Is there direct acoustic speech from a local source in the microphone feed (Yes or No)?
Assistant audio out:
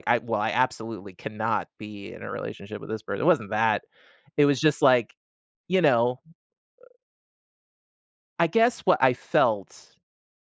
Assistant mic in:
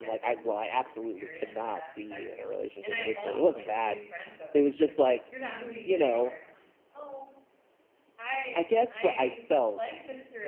Yes